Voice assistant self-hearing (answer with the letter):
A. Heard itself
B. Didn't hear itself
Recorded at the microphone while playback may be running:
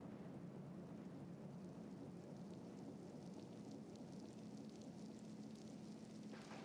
B